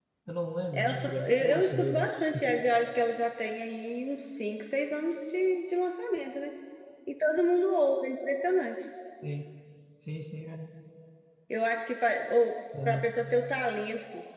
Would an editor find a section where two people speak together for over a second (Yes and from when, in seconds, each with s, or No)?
Yes, from 0.7 s